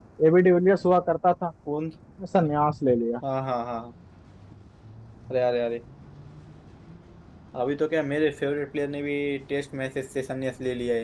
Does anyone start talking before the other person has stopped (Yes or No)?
No